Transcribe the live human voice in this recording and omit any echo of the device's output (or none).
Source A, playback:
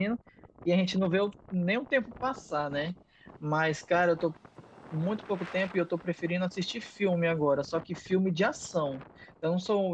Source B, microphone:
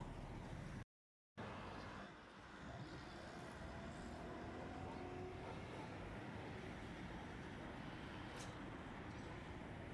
none